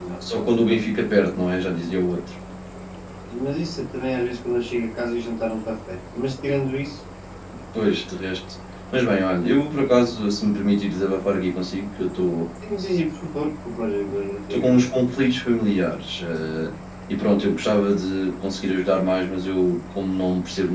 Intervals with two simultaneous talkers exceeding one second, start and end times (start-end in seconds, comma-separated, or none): none